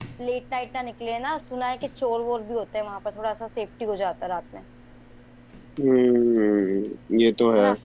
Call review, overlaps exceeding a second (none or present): none